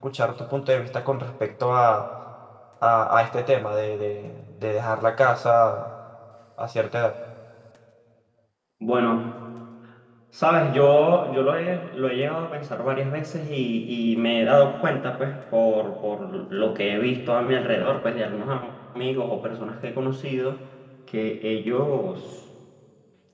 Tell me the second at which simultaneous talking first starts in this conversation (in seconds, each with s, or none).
none